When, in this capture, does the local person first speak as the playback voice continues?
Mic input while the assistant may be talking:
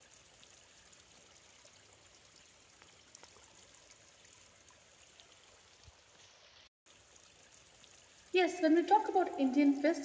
8.3 s

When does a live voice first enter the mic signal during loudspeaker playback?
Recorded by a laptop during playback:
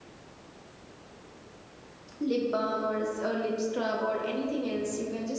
2.2 s

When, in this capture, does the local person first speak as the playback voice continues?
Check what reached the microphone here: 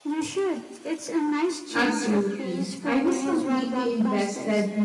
1.7 s

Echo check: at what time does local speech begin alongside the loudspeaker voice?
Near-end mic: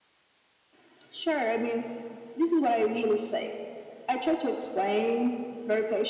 none

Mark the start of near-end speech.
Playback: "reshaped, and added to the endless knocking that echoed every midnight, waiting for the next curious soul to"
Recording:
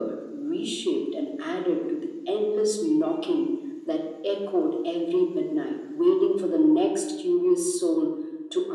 none

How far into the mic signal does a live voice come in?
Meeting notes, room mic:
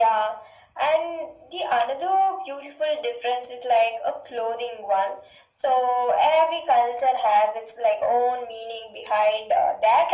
none

